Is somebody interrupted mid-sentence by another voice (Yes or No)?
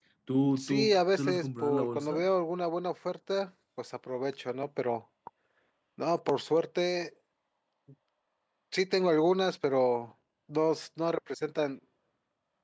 Yes